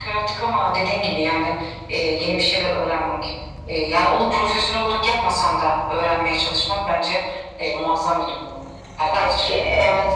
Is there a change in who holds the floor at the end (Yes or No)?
Yes